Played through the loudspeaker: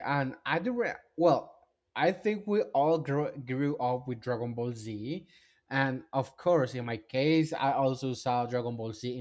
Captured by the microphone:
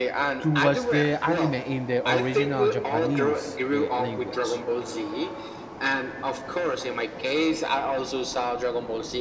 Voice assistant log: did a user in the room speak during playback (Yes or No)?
Yes